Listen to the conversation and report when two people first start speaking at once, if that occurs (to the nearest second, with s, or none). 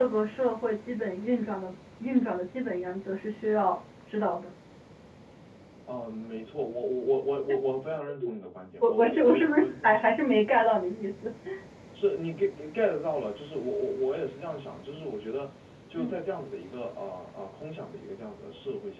9 s